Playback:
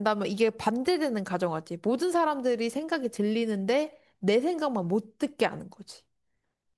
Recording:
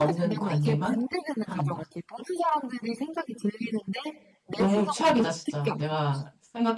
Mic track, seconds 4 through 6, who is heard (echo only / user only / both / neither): both